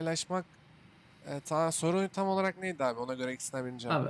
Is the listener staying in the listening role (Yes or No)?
No